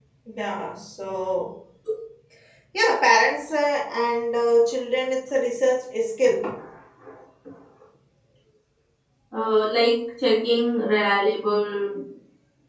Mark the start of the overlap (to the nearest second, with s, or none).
none